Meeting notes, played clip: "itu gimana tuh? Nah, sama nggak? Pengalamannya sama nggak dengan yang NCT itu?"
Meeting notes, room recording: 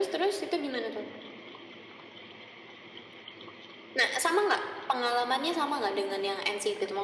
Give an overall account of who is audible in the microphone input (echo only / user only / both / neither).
echo only